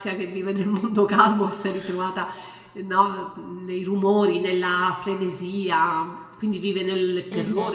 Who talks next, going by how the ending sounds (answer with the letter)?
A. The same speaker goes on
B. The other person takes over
B